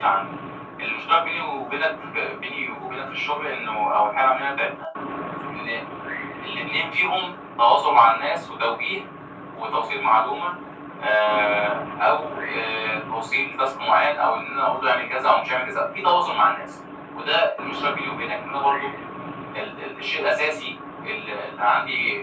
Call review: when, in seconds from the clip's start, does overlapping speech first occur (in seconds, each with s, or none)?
none